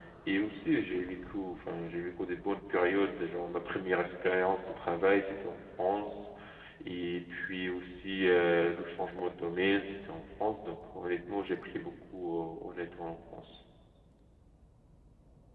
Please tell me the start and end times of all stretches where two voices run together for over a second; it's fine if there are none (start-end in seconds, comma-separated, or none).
none